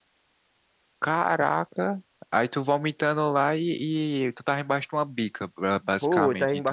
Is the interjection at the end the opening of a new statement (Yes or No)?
Yes